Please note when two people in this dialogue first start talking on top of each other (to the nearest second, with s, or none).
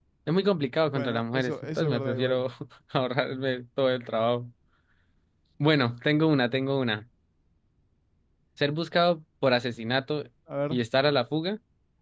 1 s